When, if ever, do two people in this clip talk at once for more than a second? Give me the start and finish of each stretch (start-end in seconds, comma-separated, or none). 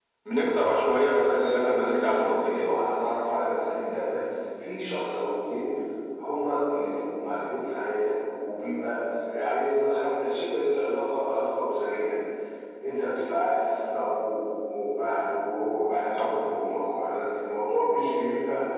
1.2-2.7